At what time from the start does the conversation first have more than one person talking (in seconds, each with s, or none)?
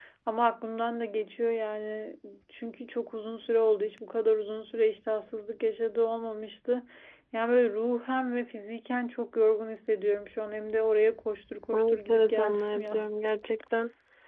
11.7 s